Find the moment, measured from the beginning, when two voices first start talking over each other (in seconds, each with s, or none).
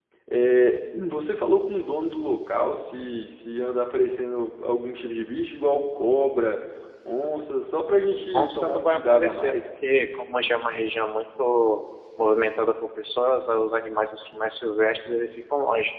8.2 s